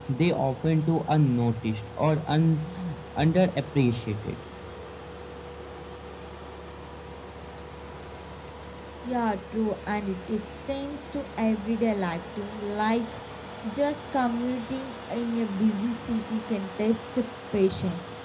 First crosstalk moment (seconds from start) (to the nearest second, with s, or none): none